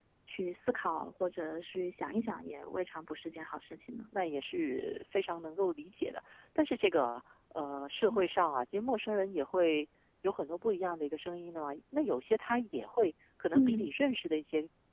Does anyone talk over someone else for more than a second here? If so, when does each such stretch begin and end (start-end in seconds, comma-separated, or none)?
none